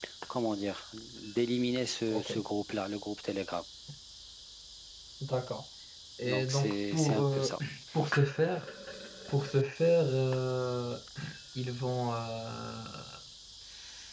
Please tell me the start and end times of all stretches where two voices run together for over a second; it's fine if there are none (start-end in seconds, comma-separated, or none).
6.2-7.5